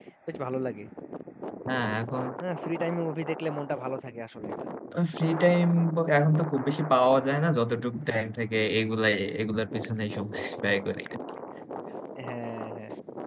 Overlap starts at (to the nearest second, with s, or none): none